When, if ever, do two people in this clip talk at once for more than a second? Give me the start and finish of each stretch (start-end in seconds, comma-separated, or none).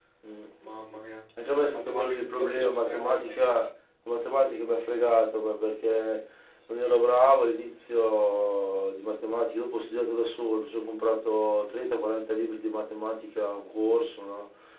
1.7-3.4